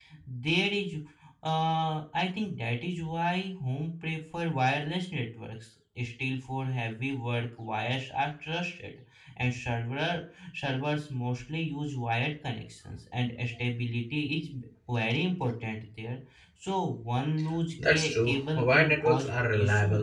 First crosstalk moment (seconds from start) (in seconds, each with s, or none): 17.8 s